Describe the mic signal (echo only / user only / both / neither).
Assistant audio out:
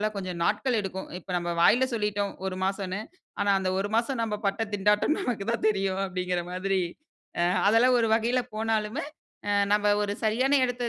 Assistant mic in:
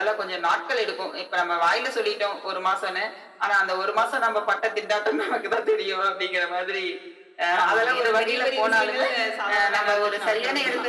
both